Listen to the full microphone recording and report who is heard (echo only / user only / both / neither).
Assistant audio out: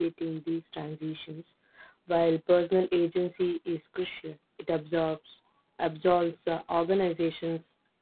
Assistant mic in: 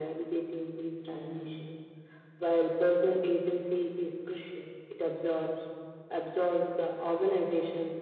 echo only